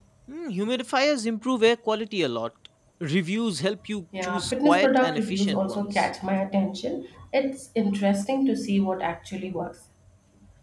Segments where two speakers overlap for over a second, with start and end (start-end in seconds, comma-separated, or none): 4.2-6.1